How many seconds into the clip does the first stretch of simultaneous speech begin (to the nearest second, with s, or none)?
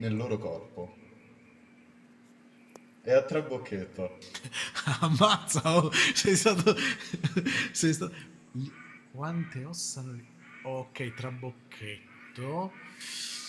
none